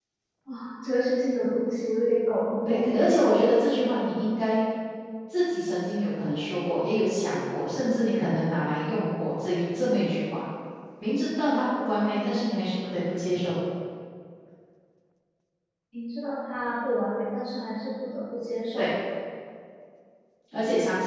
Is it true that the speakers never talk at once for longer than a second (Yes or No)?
Yes